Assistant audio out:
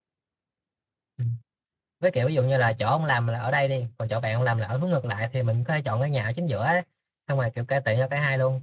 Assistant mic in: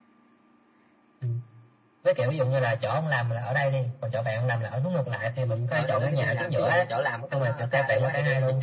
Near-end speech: present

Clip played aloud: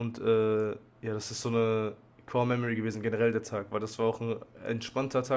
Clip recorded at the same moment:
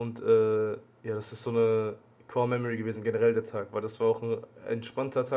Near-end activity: none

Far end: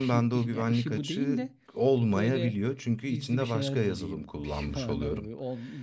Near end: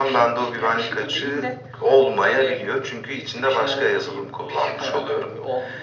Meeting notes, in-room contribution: none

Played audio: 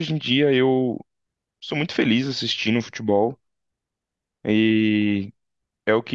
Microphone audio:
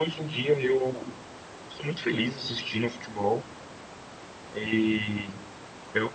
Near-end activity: none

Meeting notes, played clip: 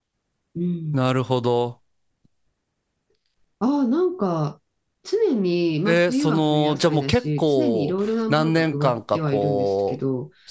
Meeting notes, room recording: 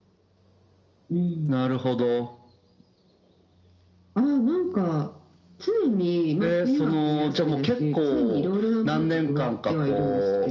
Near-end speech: none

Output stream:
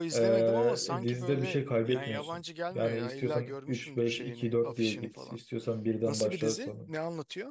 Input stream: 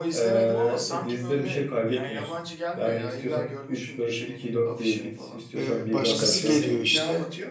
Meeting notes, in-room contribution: present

